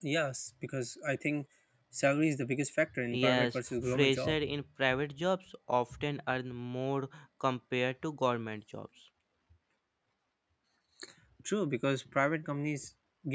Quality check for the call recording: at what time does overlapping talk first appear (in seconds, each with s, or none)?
3.1 s